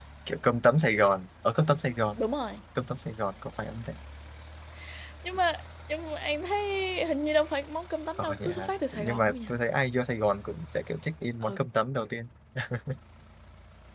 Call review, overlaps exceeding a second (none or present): present